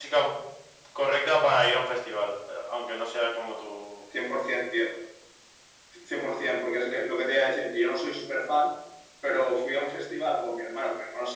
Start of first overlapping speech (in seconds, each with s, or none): none